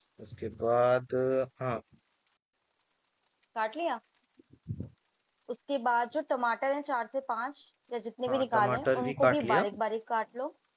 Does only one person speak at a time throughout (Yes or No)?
No